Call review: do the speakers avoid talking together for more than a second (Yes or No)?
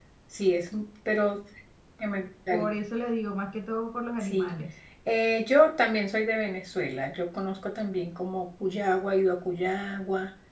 Yes